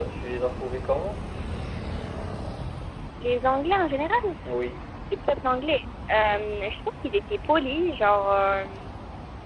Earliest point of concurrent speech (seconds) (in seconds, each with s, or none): none